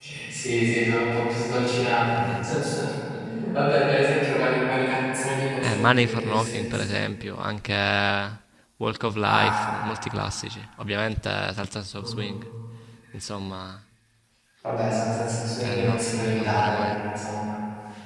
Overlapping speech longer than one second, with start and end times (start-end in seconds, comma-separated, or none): 5.6-6.8, 15.6-16.9